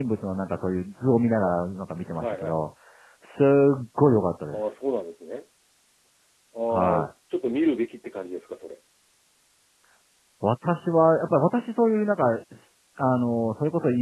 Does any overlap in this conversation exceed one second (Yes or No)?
No